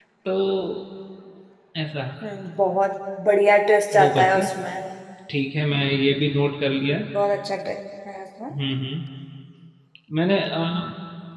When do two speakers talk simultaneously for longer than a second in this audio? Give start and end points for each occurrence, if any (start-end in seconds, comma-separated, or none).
none